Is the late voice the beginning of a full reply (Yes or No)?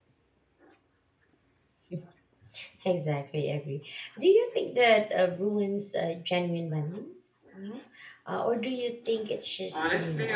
Yes